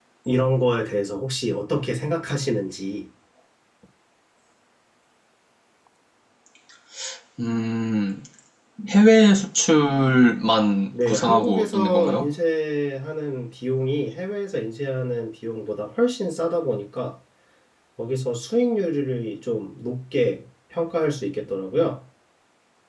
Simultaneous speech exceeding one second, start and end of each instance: 11.1-12.3

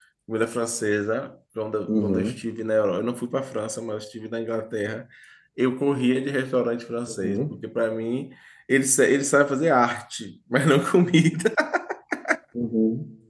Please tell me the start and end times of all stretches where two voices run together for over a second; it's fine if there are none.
none

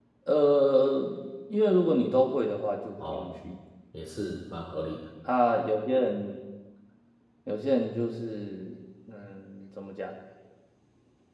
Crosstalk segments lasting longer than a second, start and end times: none

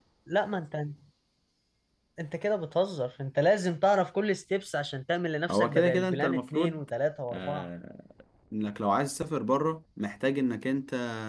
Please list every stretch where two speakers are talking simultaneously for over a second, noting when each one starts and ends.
5.5-6.8

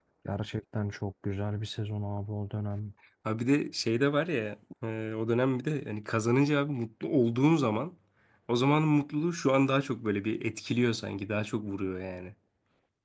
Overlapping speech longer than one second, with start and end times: none

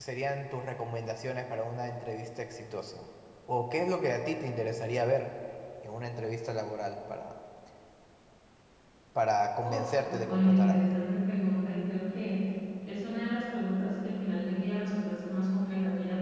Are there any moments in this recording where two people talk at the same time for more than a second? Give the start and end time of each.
9.6-11.1

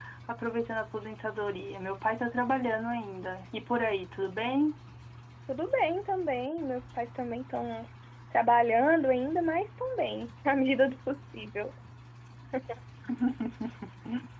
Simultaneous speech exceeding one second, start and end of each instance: none

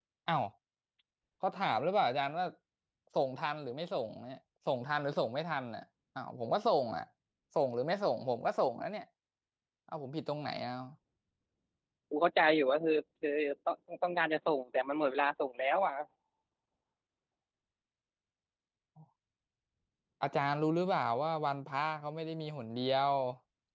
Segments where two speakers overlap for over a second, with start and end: none

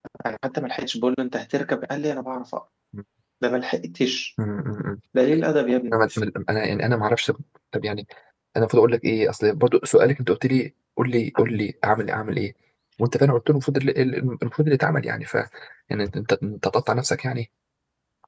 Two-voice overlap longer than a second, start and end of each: none

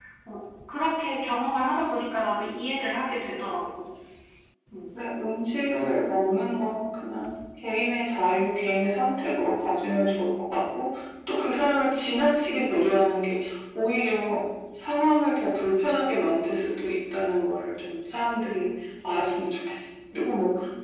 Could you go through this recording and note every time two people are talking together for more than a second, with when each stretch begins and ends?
none

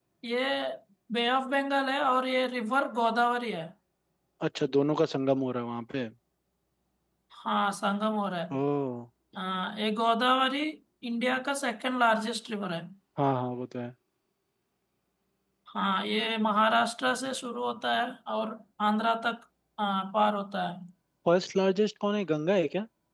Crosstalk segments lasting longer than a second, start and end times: none

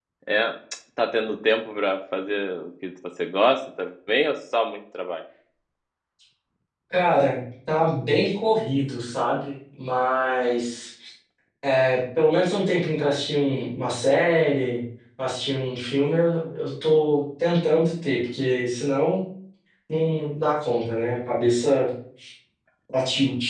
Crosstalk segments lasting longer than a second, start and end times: none

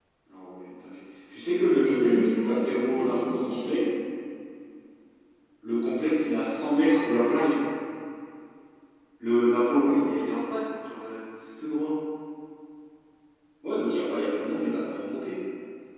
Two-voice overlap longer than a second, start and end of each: 1.6-3.9

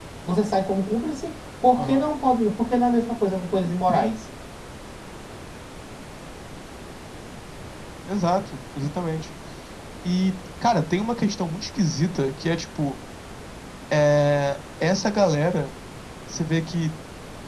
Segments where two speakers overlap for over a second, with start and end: none

